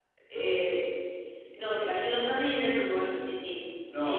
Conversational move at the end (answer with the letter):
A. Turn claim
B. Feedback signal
A